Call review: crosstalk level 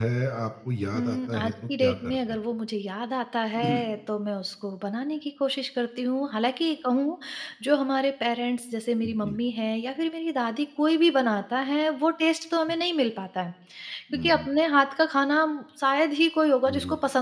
present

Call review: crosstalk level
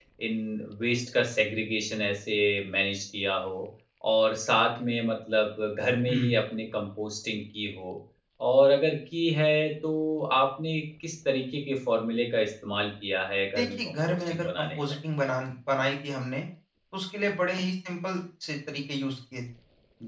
present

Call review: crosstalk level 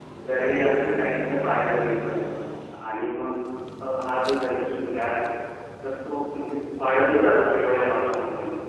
present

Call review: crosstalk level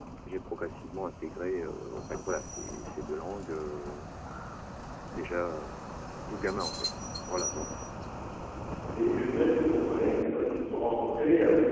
none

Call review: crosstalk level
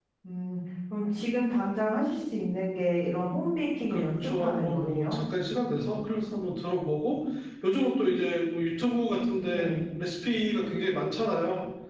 present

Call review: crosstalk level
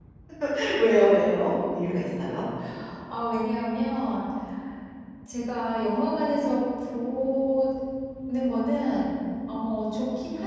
none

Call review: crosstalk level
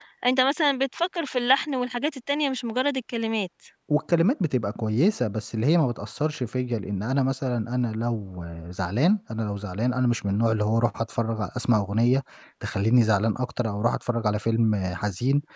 none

